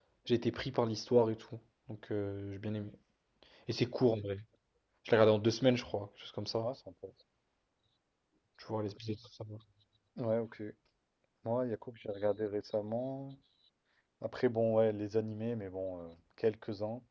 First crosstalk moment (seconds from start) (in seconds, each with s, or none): none